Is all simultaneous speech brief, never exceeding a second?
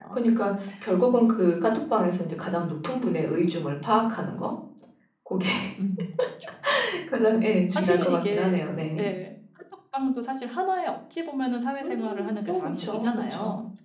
No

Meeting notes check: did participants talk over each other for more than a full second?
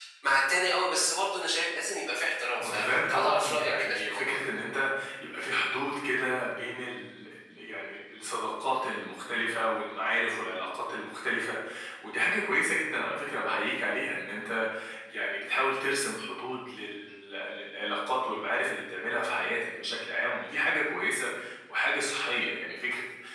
Yes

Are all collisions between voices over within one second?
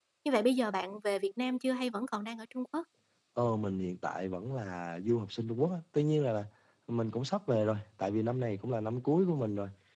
Yes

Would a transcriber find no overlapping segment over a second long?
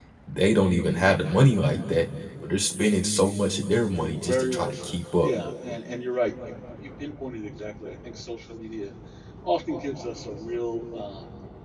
No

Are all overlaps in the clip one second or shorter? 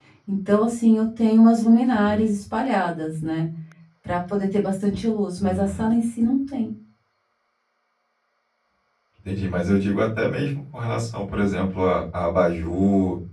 Yes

